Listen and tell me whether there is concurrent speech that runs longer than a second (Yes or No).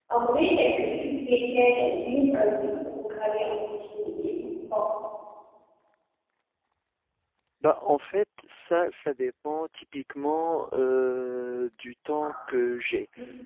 No